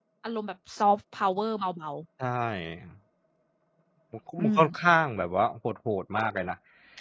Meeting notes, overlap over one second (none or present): none